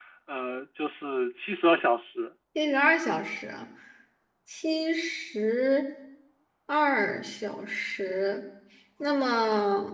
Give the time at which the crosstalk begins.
none

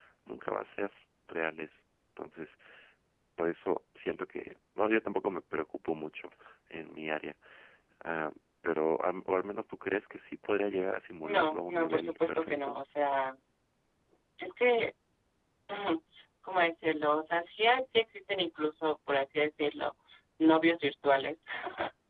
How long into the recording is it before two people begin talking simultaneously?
11.2 s

